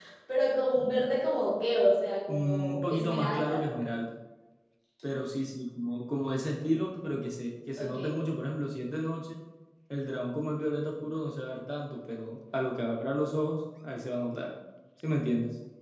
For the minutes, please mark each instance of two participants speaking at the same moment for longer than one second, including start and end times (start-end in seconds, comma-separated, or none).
2.3-3.6